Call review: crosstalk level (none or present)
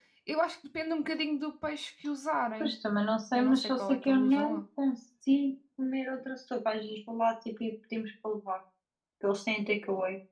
present